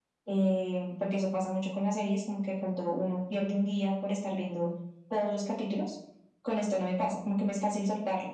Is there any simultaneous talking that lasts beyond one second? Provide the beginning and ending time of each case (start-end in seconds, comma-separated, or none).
none